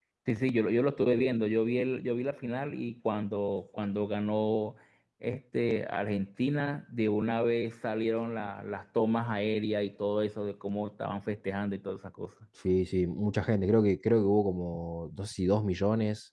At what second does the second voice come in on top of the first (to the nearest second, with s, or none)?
none